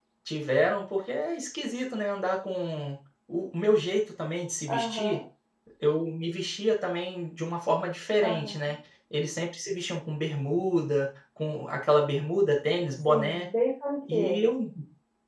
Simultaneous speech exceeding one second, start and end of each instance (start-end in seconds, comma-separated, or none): none